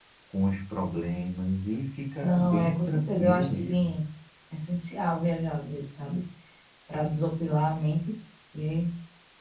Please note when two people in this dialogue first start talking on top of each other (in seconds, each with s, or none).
2.2 s